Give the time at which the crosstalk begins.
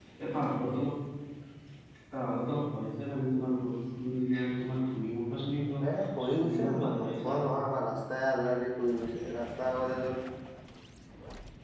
6 s

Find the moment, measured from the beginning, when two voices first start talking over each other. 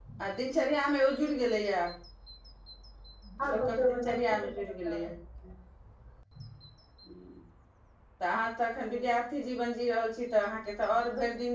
4 s

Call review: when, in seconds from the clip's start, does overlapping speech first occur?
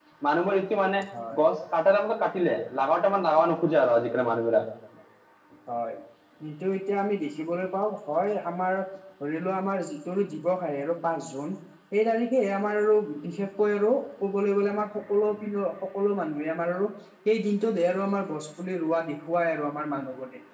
none

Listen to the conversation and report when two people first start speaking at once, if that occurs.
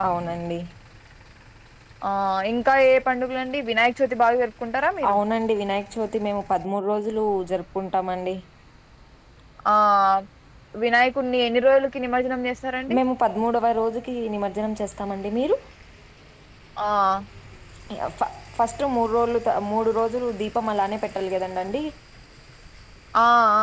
none

